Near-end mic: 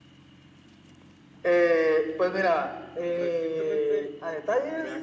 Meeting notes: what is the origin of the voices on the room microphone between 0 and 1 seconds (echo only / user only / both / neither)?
neither